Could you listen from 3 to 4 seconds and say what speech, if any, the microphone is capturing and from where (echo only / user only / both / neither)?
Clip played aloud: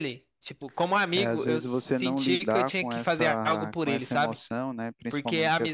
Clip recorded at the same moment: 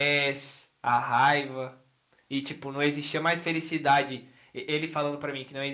user only